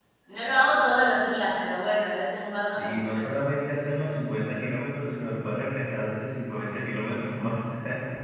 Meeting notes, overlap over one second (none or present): none